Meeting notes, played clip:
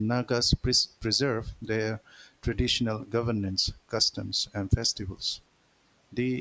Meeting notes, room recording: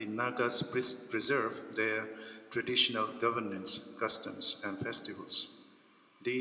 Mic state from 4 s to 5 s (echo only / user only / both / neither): echo only